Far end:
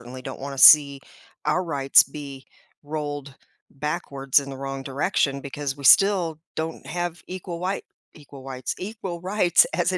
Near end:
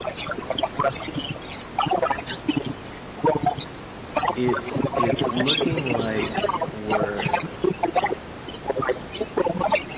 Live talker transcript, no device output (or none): It's it's looking like we're